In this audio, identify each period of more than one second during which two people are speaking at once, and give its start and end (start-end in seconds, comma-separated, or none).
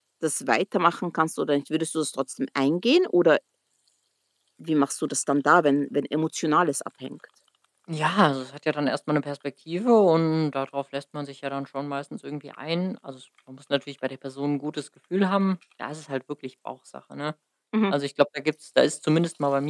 none